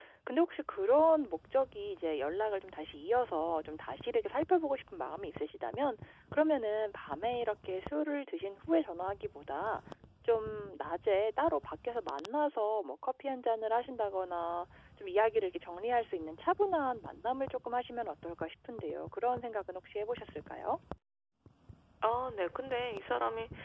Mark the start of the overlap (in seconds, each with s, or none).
none